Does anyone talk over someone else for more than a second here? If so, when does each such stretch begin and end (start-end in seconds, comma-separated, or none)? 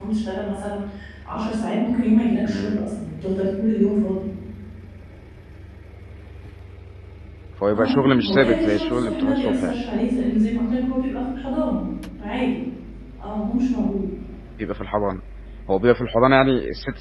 7.7-9.8